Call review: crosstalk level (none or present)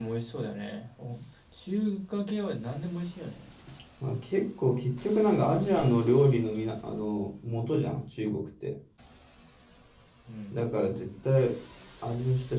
none